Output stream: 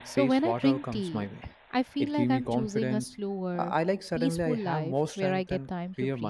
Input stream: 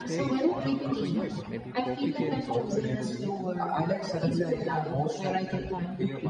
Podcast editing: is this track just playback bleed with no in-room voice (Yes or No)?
No